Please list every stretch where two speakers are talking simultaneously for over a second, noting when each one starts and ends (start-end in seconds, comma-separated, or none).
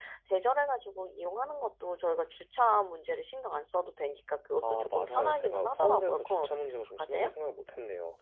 4.6-7.3